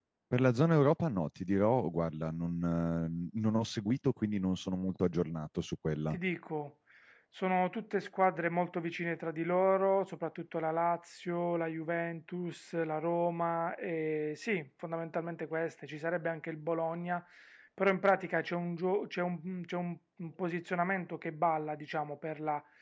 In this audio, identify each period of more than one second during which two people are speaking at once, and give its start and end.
none

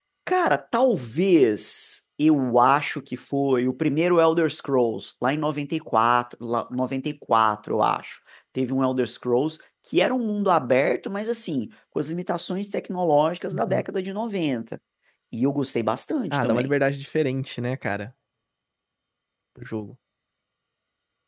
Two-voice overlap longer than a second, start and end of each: none

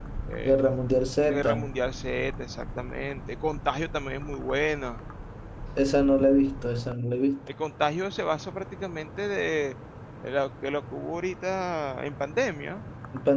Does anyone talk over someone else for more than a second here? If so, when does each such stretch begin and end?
none

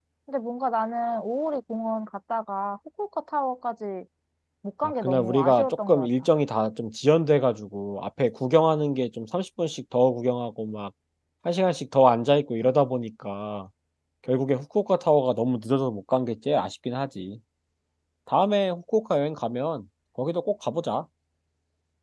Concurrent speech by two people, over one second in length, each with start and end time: 4.8-6.3

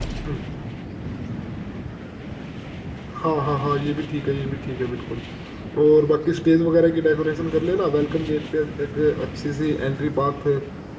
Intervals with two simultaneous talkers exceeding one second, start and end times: none

